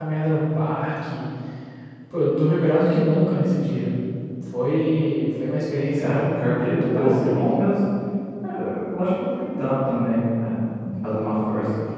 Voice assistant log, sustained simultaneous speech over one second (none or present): present